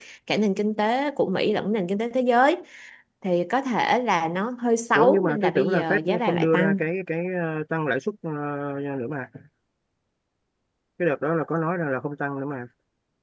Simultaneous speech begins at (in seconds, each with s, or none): 5.0 s